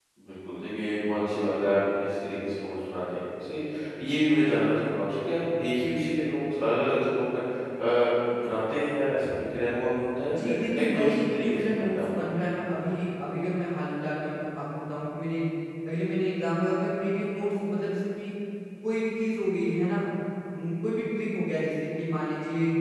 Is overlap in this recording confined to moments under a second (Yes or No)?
No